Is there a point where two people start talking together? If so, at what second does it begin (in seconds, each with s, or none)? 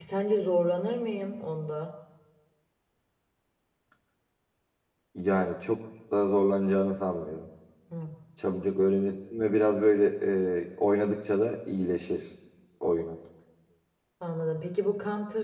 none